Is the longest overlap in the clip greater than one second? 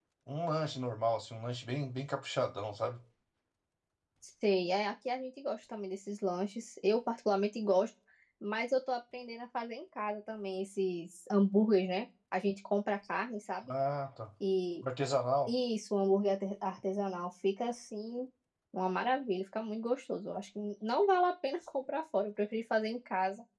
No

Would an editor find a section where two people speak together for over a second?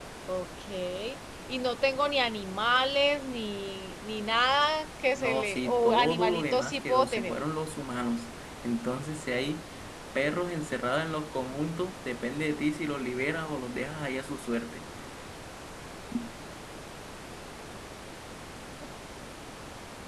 Yes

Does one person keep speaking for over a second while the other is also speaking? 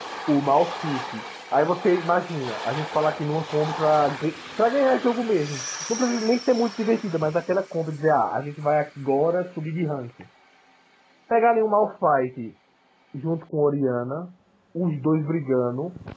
No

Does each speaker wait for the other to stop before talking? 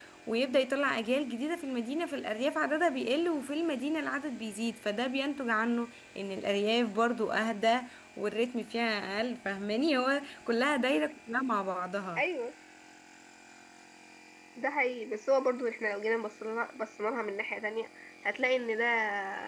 Yes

